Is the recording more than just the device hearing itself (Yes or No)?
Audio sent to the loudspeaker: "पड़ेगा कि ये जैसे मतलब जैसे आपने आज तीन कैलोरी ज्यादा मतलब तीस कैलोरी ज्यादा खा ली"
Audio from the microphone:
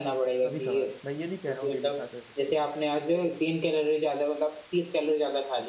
Yes